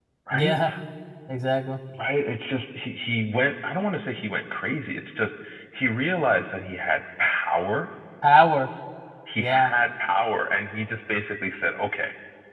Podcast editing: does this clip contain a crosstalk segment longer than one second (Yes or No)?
No